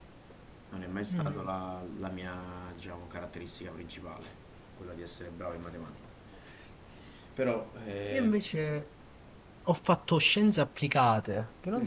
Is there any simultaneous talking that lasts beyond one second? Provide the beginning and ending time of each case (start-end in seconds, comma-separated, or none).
none